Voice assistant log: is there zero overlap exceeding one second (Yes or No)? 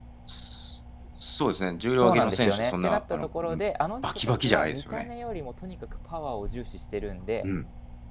No